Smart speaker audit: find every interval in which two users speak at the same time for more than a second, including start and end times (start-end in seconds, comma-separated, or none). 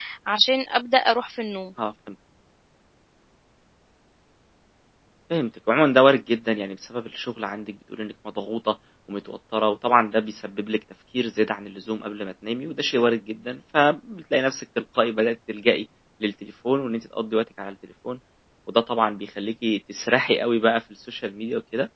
none